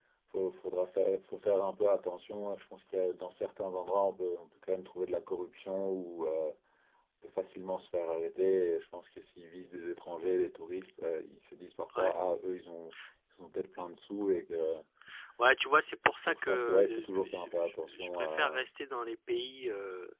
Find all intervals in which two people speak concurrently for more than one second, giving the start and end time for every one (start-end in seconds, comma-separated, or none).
16.2-18.6